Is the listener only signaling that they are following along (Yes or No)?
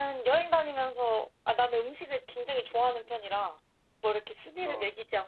Yes